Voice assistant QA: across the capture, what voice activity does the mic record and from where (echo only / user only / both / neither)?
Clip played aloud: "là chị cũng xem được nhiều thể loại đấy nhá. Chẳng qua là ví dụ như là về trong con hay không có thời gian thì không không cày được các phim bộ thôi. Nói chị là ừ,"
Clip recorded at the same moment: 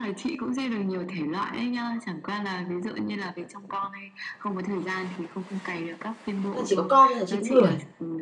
both